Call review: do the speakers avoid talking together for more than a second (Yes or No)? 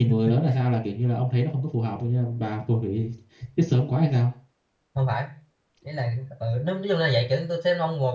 Yes